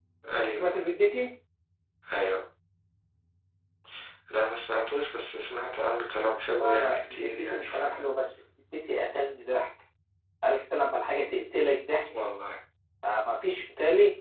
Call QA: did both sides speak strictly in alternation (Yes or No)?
No